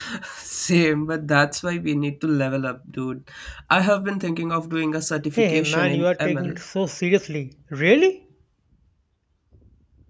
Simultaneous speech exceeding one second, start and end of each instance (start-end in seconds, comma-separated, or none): 5.4-6.6